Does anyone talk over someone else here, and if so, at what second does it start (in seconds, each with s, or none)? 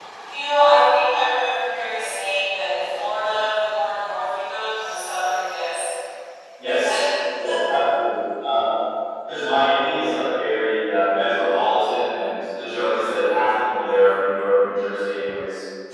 none